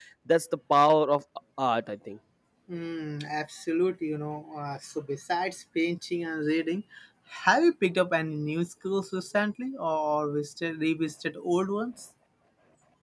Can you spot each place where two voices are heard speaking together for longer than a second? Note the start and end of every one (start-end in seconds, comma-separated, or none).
none